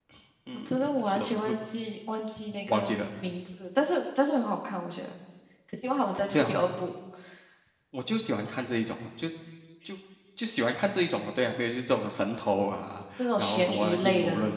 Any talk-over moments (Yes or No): Yes